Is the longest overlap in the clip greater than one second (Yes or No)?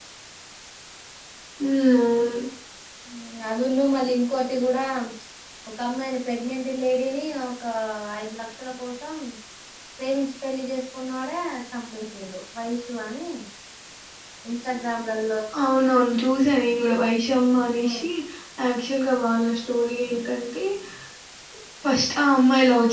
No